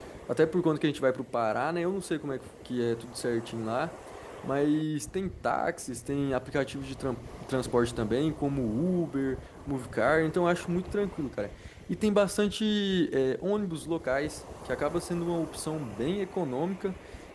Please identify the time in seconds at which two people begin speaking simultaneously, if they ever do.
none

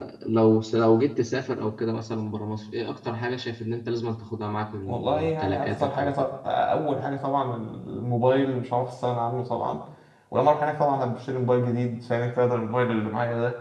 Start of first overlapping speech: 4.9 s

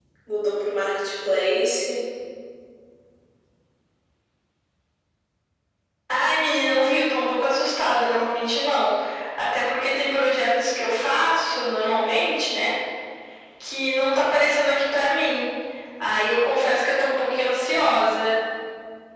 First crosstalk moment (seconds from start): none

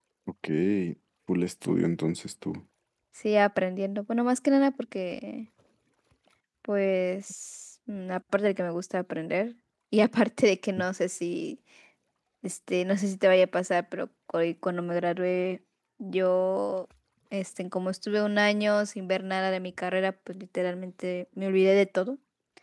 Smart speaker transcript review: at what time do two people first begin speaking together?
none

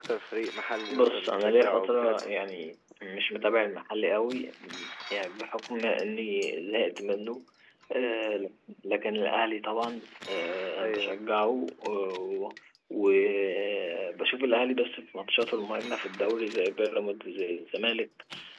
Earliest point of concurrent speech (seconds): 0.9 s

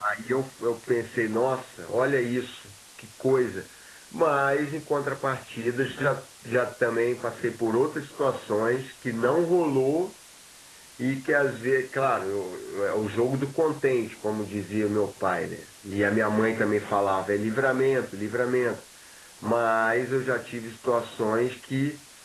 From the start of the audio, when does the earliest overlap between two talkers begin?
none

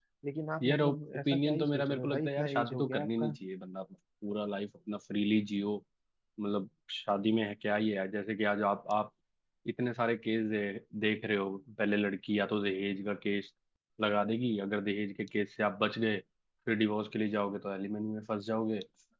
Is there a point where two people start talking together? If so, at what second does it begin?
0.6 s

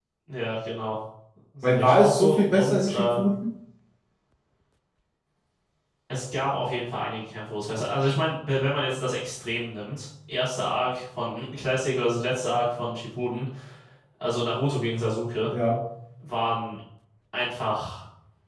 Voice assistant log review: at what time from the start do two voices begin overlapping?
1.6 s

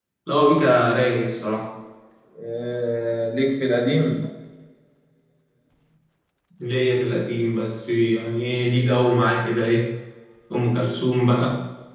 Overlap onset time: none

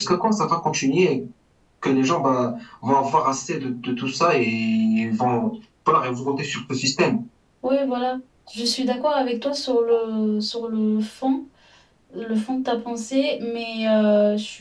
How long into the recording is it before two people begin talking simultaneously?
none

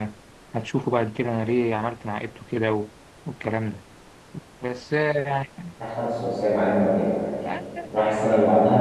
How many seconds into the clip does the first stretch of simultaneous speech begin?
none

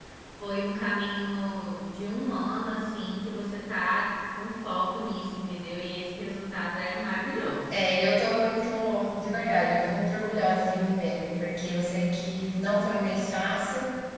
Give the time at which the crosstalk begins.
none

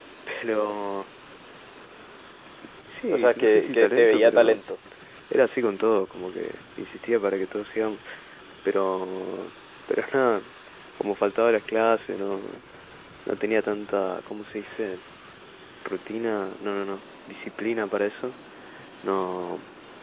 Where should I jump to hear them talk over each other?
3.1 s

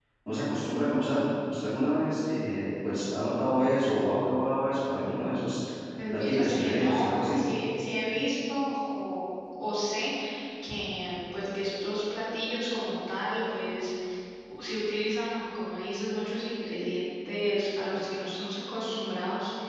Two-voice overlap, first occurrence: 6.1 s

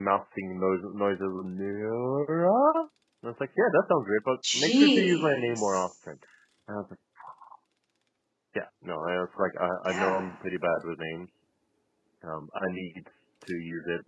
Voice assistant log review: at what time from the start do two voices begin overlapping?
4.5 s

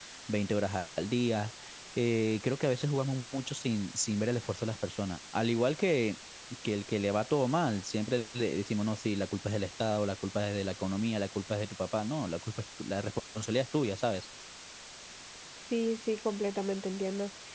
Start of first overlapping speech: none

